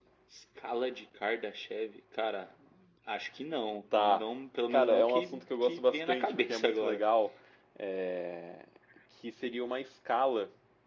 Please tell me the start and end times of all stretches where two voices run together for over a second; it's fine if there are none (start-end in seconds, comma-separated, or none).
4.7-7.0